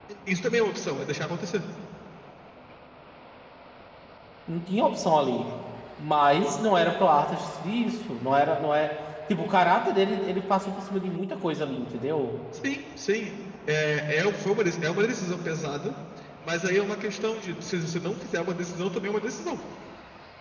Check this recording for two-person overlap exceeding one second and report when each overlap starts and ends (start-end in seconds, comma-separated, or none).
none